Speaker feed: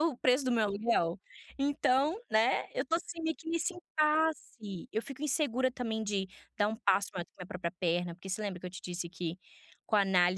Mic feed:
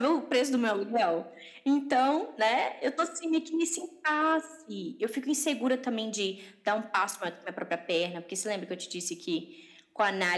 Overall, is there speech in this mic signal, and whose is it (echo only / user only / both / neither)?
echo only